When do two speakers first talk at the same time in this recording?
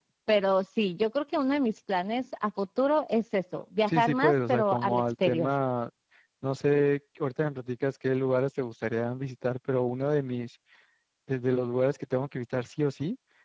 3.9 s

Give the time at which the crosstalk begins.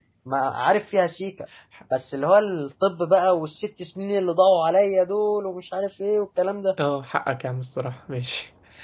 none

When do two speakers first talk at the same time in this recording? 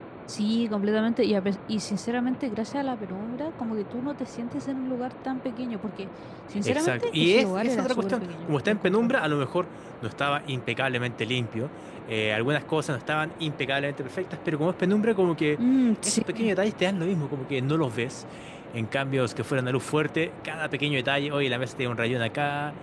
6.6 s

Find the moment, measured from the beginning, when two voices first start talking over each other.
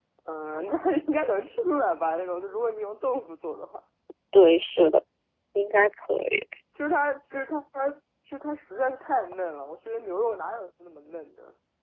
none

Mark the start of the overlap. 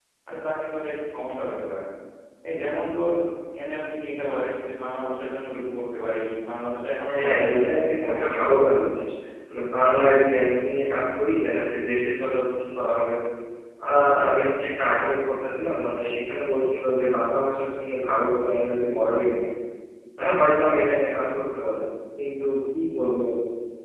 7.1 s

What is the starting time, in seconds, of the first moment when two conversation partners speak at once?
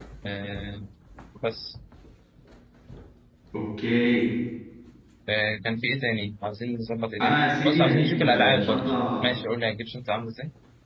7.2 s

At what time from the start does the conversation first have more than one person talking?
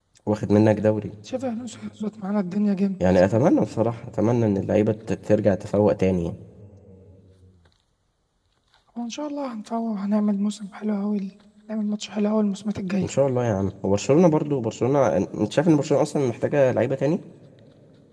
none

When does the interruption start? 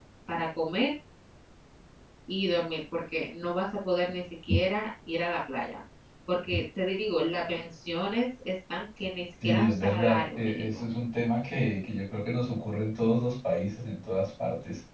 9.4 s

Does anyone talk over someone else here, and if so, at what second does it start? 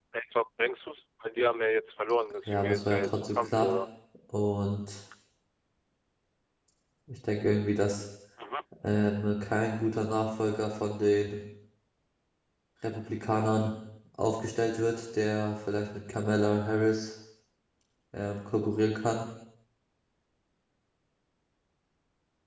2.5 s

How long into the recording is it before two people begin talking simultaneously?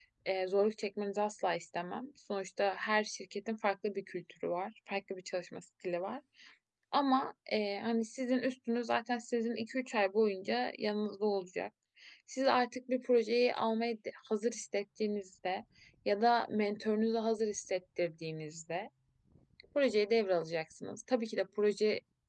none

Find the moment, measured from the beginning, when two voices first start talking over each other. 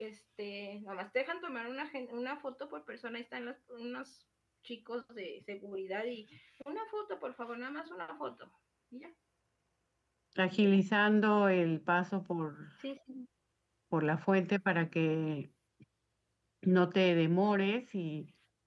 none

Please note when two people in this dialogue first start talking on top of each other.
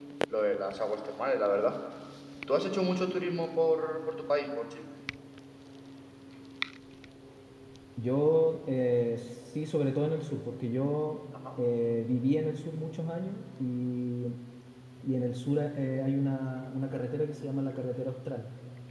none

